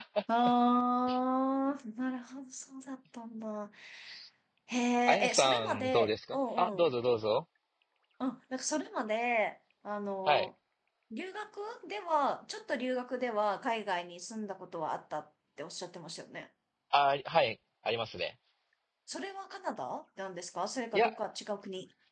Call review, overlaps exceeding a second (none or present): present